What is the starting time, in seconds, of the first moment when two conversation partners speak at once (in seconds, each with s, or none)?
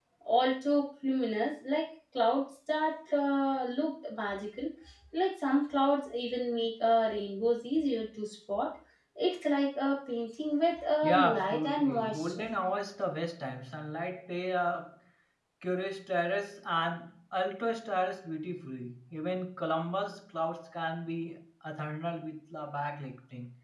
11.0 s